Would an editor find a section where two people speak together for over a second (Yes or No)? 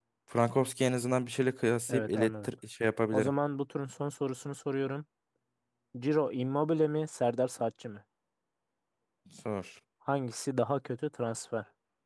No